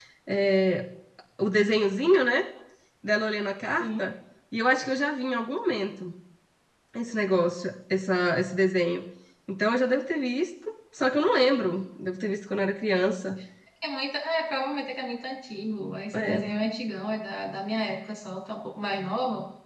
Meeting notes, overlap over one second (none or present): none